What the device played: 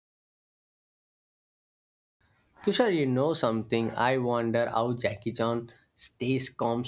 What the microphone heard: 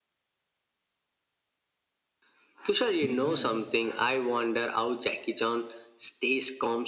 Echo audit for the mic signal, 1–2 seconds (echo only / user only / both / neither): neither